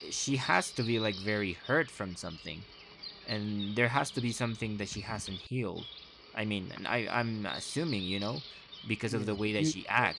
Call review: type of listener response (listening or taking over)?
taking over